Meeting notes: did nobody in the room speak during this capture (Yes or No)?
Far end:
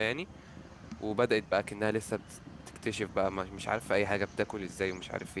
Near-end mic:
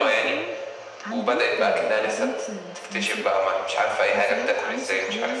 No